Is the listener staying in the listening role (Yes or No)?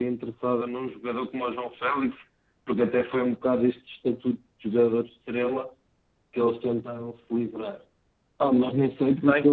Yes